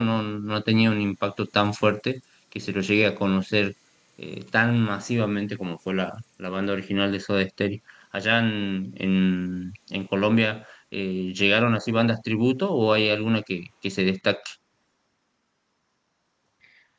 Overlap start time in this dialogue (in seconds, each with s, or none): none